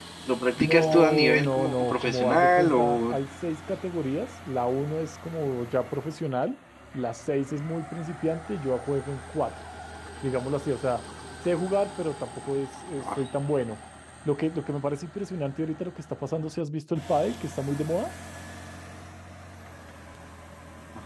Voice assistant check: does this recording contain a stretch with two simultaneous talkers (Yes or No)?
Yes